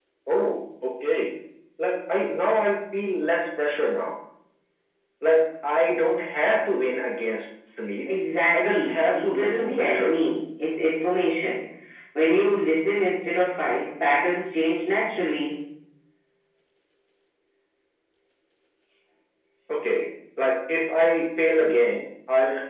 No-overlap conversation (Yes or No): No